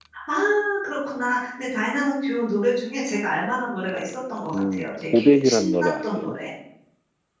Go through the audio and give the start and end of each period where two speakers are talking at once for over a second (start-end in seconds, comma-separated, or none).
4.5-6.4